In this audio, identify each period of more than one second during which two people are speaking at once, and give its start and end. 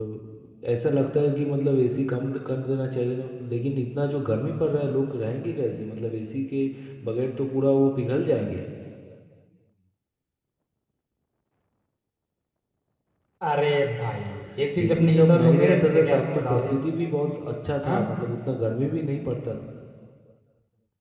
14.8-16.8

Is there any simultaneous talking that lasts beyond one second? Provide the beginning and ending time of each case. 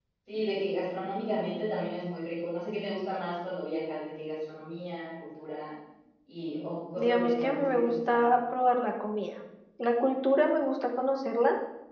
7.0-8.3

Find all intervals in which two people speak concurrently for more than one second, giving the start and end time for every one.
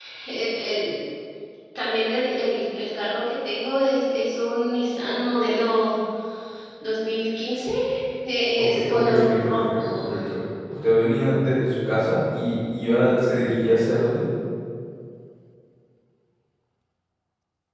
8.6-10.1

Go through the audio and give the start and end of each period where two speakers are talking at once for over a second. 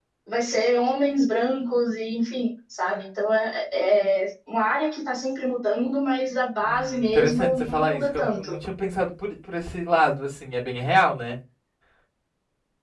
6.6-8.5

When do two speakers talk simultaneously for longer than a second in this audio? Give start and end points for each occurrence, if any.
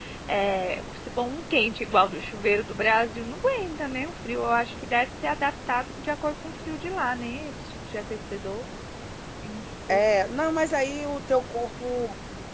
none

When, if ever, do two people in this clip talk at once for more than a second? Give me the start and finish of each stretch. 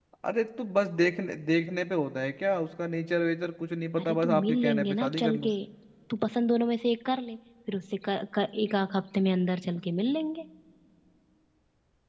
4.0-5.5

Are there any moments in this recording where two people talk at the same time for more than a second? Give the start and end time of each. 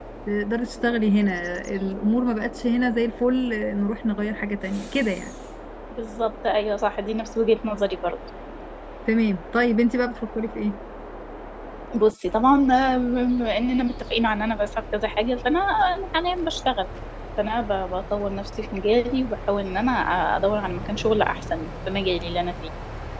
none

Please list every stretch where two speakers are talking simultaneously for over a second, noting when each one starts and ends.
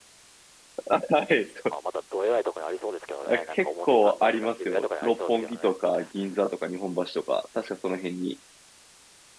3.2-5.7

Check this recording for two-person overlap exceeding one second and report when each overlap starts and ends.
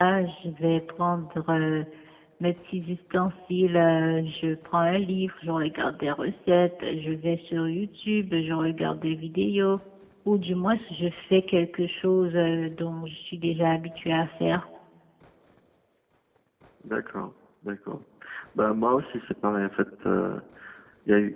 none

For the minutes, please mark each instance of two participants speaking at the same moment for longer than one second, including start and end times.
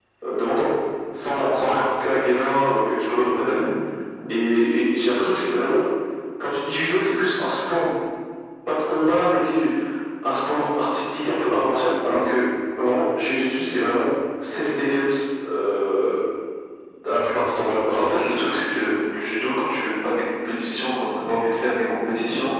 none

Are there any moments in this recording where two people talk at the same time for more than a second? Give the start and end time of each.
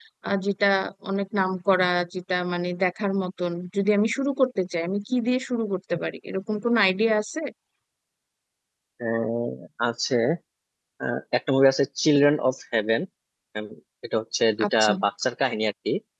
none

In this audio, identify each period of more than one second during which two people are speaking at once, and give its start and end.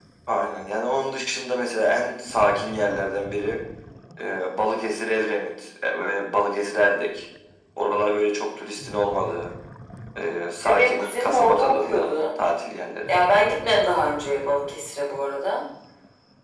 10.6-12.1

